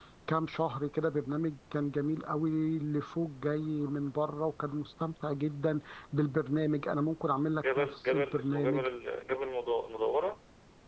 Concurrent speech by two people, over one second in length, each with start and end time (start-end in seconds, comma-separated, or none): 7.7-8.9